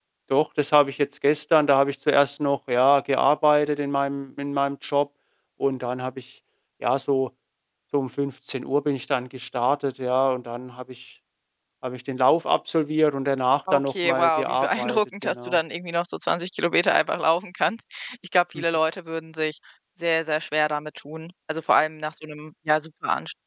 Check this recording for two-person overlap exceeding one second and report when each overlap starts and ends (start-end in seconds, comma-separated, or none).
13.7-15.6